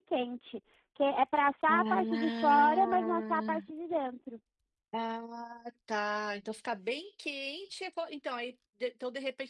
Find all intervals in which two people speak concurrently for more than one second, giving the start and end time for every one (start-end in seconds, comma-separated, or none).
1.7-3.7